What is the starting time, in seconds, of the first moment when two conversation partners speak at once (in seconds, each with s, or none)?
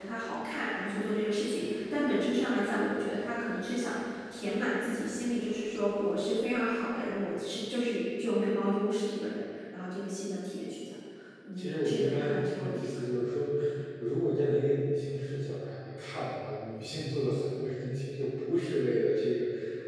11.6 s